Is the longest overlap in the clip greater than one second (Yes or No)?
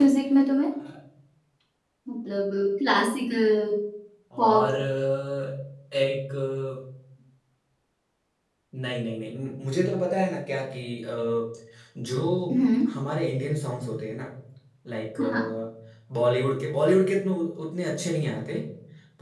No